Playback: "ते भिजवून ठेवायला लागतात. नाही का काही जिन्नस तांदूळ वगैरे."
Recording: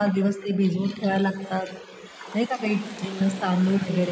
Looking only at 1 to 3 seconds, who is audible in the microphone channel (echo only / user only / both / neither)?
echo only